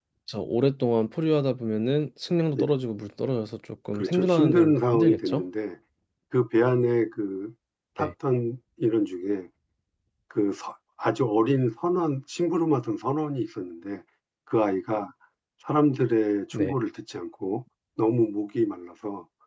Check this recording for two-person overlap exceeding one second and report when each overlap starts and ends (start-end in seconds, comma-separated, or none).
3.9-5.4